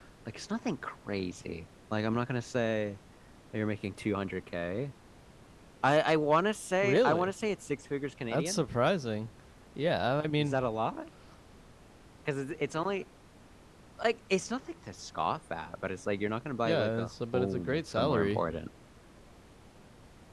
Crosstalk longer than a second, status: present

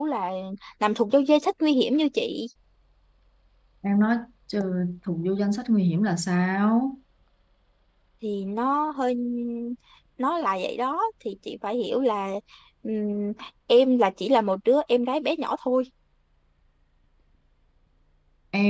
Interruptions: none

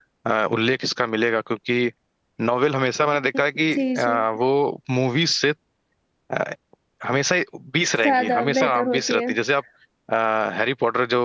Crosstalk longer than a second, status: present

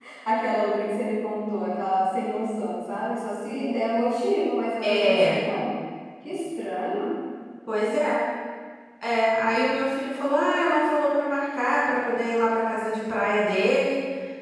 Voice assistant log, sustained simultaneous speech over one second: none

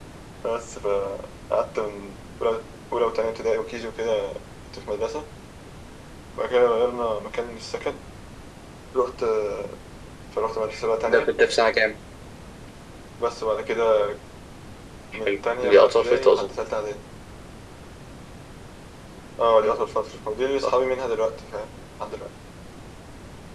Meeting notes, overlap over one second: present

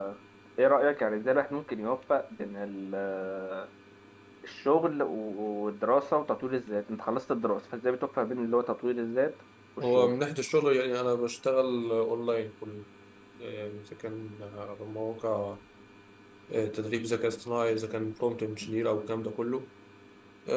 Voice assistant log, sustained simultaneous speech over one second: none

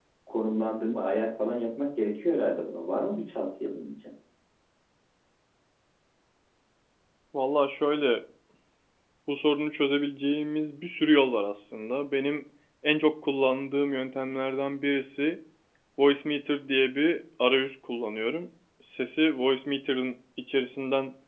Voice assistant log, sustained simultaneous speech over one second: none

